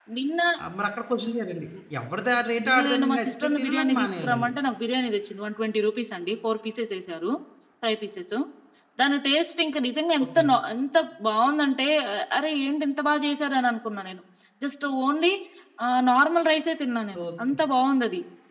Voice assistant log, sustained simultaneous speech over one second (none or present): present